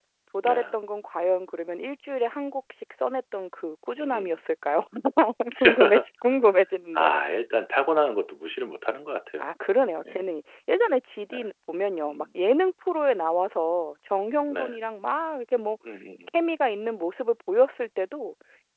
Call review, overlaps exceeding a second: none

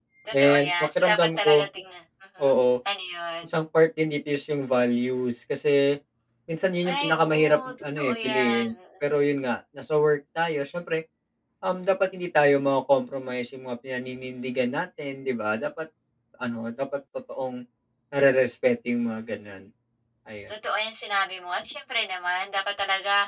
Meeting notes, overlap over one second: present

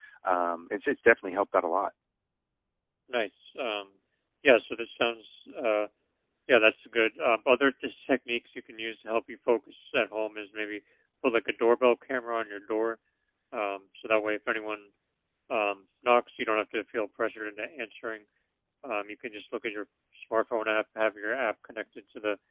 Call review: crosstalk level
none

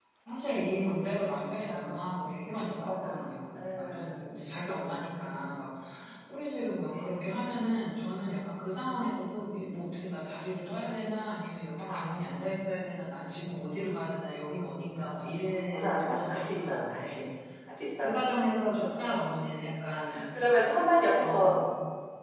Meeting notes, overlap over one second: present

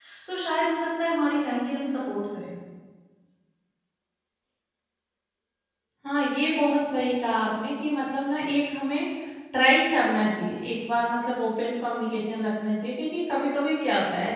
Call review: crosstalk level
none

